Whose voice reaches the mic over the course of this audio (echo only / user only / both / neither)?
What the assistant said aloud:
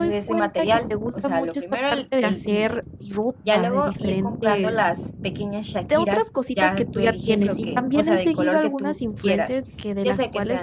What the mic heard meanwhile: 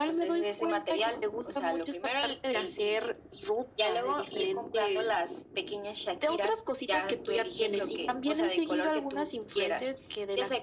echo only